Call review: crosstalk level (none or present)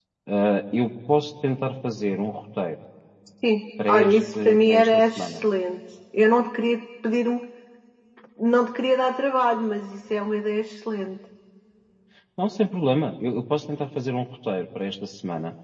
present